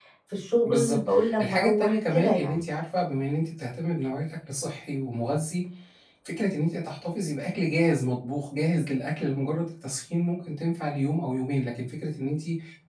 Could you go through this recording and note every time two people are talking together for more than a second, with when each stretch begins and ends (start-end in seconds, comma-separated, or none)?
0.6-2.6